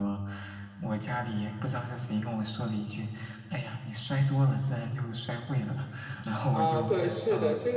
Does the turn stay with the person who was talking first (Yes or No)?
No